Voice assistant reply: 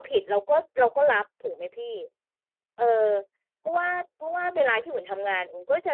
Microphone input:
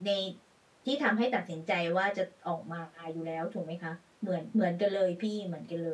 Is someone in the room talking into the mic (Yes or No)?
Yes